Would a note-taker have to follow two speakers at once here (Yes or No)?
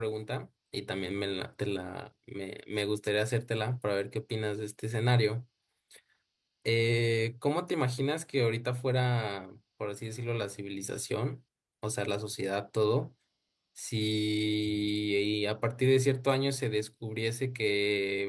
No